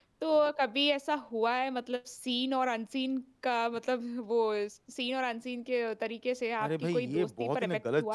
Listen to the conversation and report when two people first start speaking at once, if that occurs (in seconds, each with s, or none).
6.6 s